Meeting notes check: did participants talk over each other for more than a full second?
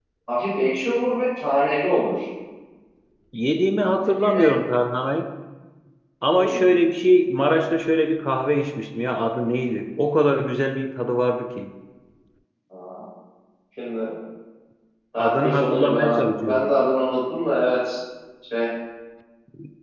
Yes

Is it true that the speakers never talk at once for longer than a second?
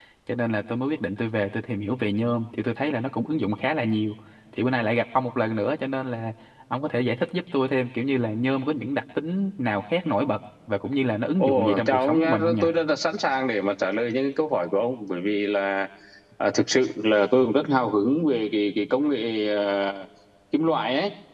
No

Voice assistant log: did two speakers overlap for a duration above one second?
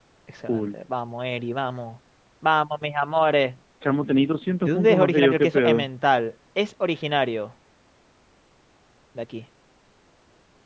Yes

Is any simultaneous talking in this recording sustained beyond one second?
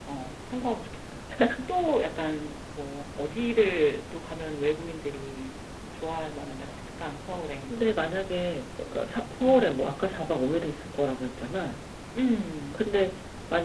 No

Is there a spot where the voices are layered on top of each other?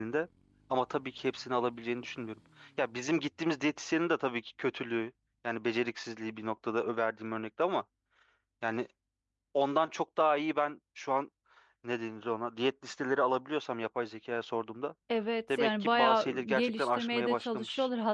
Yes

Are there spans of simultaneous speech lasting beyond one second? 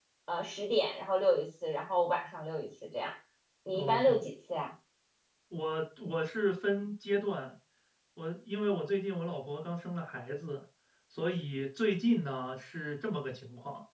No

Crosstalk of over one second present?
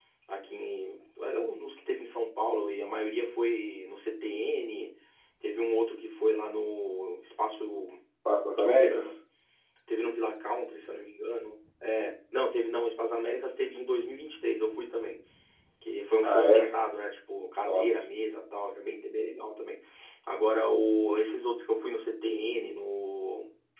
No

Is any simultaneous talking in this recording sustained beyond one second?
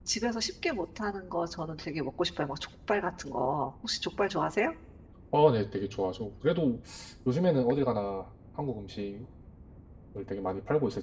No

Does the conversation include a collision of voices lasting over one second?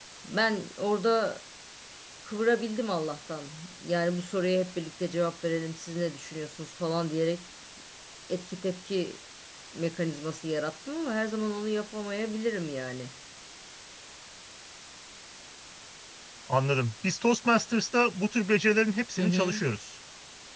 No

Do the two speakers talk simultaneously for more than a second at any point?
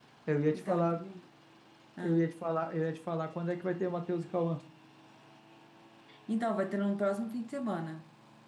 No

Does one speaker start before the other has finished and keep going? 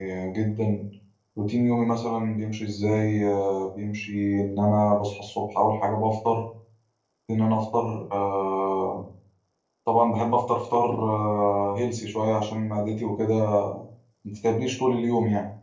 No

